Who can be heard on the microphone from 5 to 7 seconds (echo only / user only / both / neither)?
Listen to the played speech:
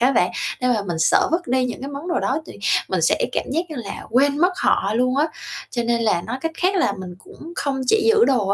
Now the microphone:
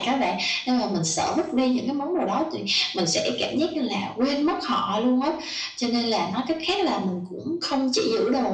echo only